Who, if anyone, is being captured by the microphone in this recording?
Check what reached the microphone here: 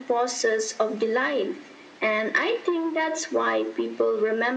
echo only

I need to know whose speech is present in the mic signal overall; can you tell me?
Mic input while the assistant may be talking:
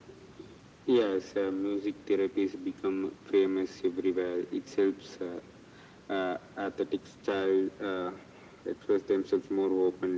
echo only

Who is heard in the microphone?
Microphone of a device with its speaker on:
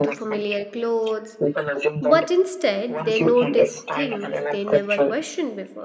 both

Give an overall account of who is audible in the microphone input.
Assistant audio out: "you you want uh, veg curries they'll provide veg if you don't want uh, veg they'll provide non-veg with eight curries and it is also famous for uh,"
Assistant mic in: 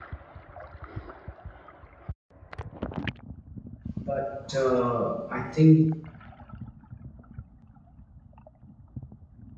user only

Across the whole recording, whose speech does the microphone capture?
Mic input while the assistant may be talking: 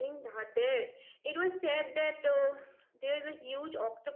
echo only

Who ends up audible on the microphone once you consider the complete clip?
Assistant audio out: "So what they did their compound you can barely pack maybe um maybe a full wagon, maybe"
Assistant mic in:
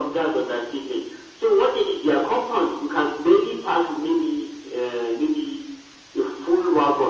echo only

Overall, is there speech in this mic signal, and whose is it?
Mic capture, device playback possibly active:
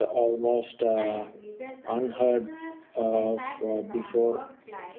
both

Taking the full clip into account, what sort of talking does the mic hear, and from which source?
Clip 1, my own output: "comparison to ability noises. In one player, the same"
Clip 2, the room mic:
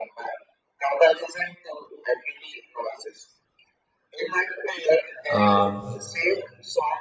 both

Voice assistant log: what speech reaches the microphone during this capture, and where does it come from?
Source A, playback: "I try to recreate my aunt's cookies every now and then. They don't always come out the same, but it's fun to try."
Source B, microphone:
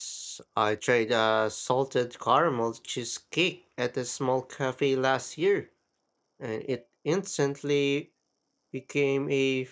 user only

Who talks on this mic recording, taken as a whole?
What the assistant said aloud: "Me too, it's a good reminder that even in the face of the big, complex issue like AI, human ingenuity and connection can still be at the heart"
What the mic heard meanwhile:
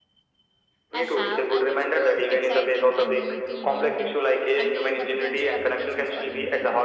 both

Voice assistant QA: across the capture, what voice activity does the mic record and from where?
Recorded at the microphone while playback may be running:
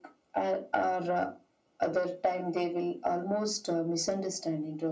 echo only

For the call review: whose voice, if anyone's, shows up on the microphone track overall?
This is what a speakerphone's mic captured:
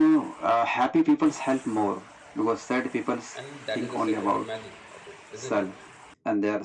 both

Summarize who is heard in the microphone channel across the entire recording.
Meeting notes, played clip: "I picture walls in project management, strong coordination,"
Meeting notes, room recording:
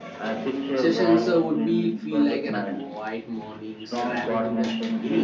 both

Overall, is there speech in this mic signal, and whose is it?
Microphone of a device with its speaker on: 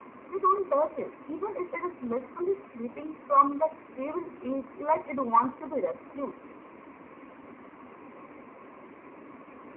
echo only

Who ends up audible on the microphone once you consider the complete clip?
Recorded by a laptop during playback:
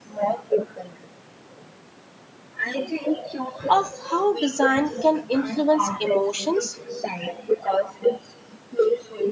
both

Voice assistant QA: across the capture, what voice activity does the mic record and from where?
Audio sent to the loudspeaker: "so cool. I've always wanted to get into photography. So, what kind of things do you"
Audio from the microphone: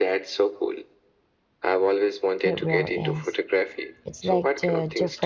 both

